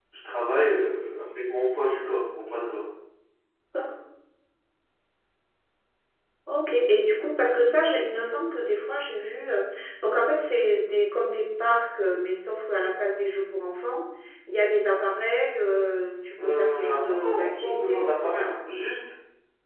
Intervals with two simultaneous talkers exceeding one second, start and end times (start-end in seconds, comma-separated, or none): 16.4-18.5